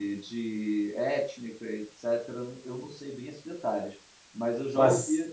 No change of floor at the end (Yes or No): Yes